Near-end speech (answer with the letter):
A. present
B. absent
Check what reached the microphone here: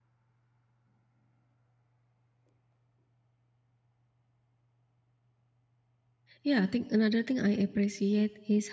A